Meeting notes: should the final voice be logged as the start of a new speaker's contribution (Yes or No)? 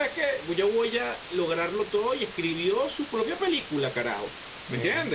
No